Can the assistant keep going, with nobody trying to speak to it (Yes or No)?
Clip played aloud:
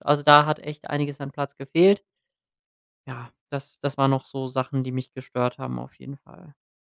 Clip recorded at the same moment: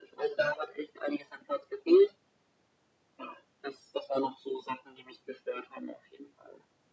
Yes